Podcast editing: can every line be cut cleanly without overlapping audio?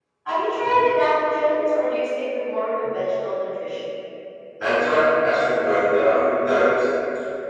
Yes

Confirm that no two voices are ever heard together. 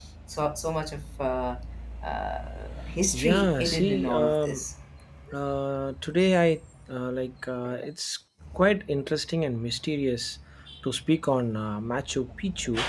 No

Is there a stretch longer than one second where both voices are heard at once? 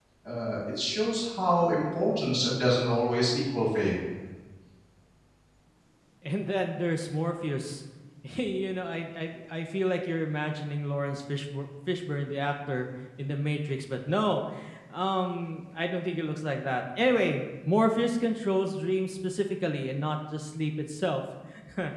No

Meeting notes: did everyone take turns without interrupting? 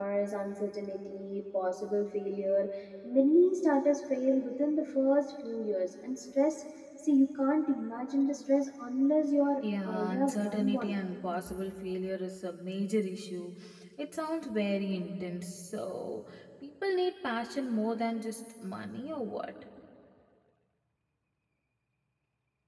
No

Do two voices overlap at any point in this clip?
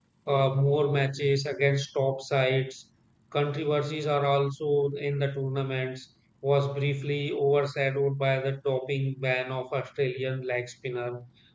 No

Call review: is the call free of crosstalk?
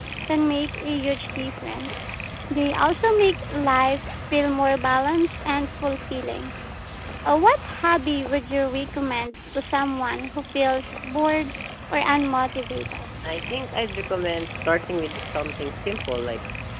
Yes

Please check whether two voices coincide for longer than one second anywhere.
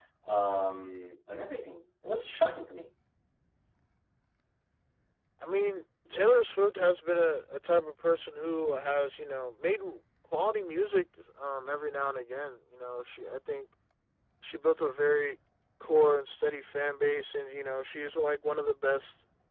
No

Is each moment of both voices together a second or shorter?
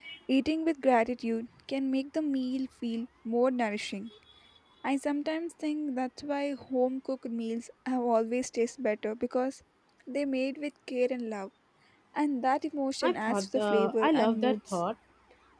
No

